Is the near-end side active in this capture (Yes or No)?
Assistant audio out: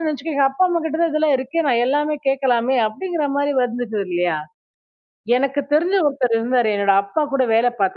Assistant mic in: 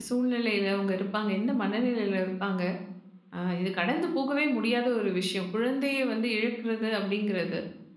Yes